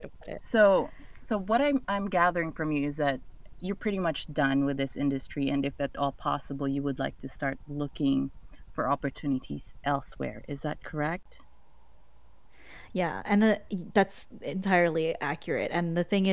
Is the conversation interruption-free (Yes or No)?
Yes